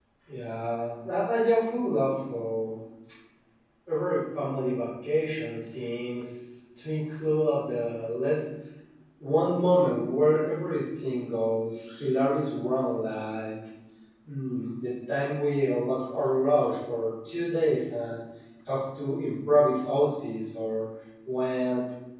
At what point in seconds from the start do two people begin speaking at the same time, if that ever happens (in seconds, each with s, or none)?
none